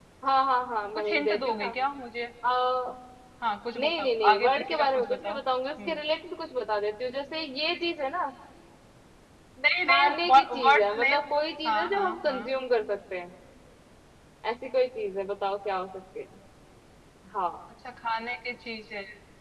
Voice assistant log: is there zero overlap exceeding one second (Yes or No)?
No